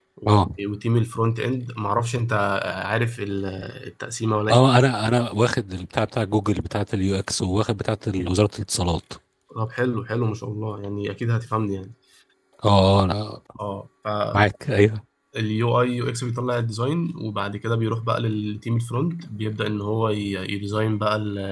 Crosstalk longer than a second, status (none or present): none